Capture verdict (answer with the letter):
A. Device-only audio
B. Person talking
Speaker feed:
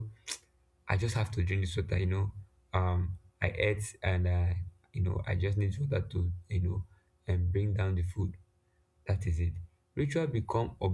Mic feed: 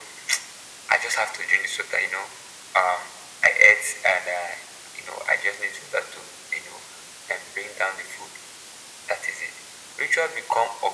A